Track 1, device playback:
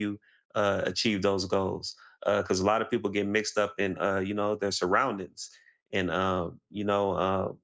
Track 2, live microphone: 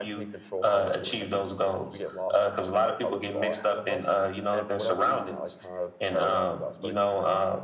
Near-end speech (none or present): present